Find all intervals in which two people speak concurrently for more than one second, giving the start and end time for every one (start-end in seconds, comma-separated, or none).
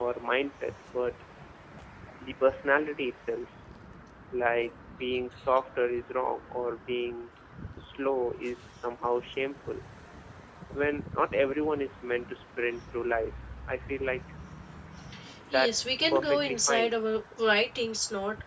15.5-16.9